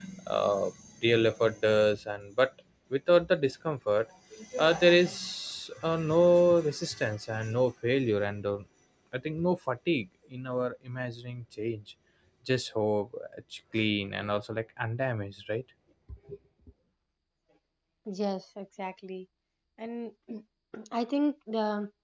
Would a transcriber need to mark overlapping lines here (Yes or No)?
No